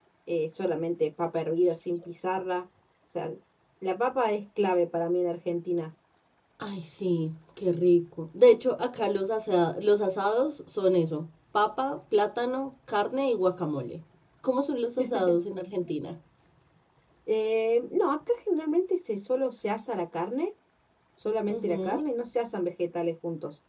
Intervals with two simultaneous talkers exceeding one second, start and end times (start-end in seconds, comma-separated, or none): none